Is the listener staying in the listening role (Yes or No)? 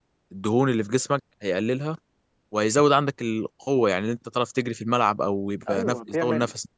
No